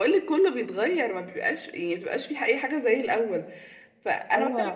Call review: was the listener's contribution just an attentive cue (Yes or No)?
Yes